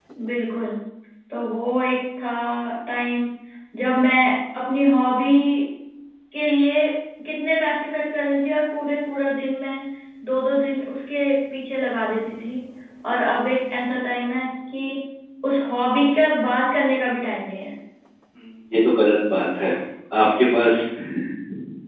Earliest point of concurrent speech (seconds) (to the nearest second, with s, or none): none